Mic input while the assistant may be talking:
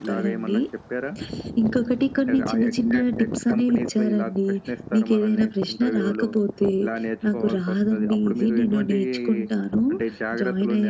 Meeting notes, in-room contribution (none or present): none